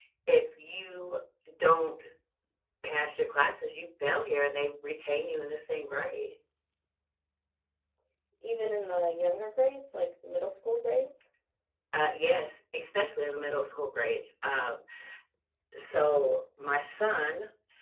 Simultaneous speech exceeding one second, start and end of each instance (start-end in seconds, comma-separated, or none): none